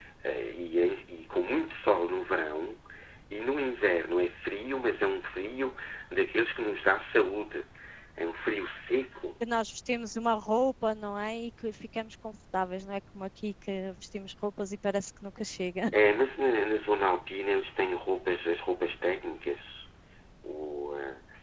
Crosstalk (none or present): none